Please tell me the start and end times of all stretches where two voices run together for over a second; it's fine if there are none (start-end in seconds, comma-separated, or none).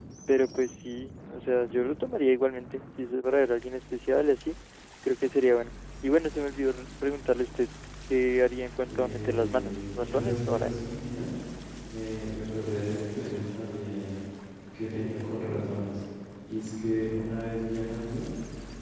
8.9-10.9